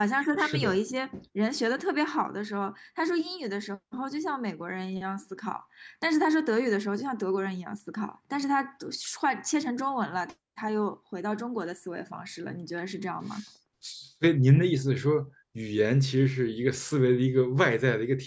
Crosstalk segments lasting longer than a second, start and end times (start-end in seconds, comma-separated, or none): none